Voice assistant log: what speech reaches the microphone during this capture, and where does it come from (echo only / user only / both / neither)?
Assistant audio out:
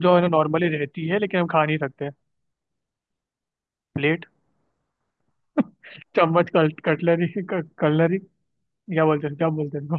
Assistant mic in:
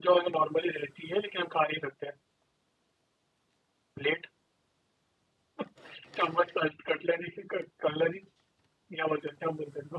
echo only